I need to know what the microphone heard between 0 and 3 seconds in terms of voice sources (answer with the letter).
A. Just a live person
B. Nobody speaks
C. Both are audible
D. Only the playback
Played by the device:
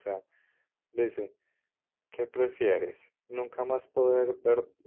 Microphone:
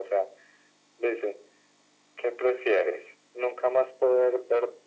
D